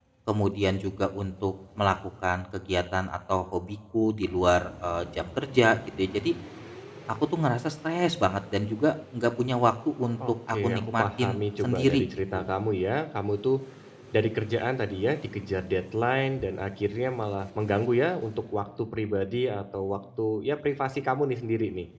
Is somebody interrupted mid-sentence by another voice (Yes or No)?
Yes